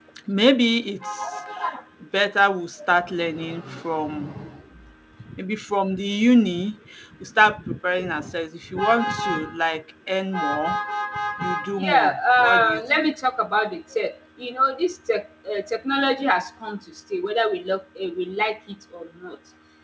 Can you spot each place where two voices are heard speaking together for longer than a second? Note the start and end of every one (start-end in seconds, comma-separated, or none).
11.8-13.1